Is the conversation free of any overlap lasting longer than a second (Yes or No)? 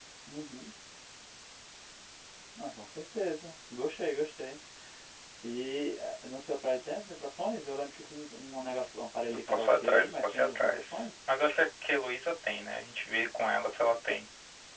No